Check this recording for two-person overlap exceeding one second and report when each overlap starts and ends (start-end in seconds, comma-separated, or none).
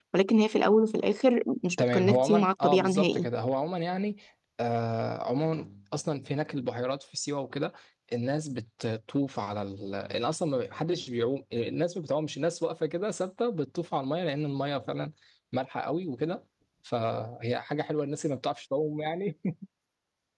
1.9-3.3